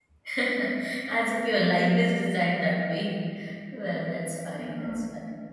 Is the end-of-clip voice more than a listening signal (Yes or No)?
No